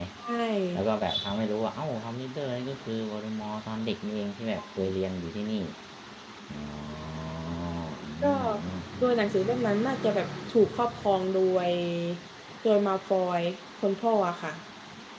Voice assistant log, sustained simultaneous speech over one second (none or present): none